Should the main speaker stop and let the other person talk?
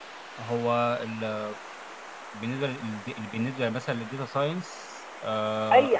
Yes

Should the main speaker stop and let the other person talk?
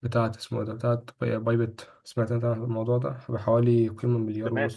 Yes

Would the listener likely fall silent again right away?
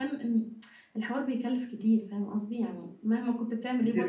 No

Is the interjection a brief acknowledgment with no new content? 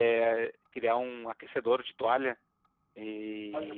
Yes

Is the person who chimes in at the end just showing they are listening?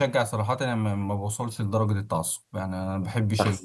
Yes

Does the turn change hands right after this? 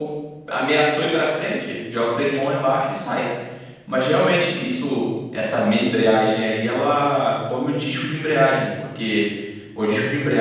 No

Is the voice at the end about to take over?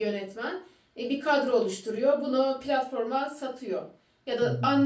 No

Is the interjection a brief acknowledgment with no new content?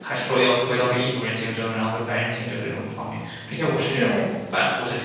Yes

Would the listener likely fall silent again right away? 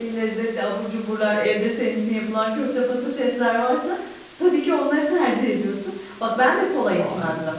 Yes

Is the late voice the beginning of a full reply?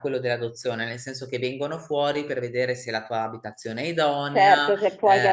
Yes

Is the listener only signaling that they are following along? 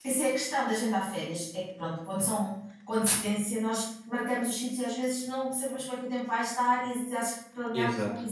Yes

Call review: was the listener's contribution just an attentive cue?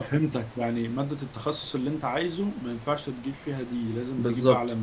No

